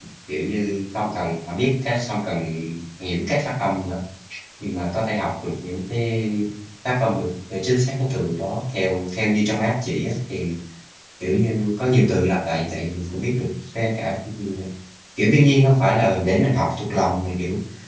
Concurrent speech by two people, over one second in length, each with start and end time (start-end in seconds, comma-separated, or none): none